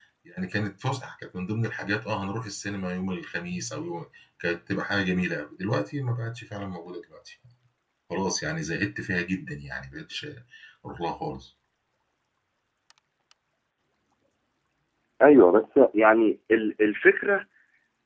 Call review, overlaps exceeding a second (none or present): none